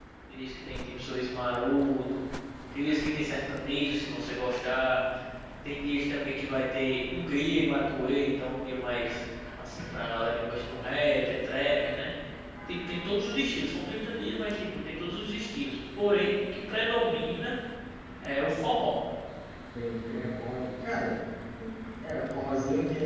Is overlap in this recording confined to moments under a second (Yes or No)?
Yes